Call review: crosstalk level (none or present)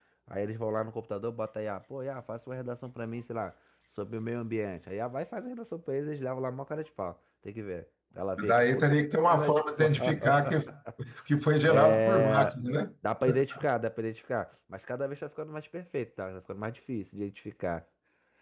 present